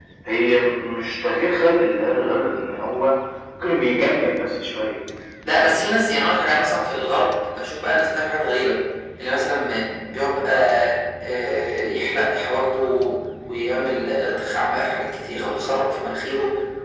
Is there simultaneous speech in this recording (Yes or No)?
No